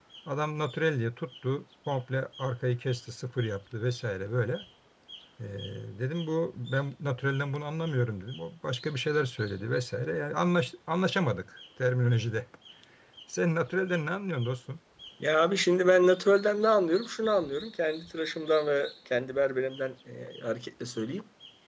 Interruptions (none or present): none